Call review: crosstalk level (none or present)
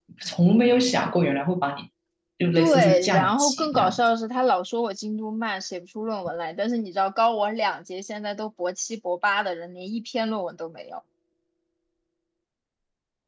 present